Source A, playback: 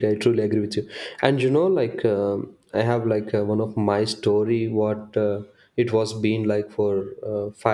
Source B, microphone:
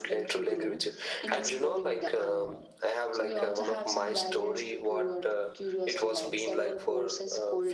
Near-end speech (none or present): present